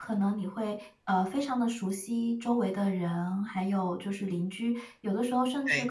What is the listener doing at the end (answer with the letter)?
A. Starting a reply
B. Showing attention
B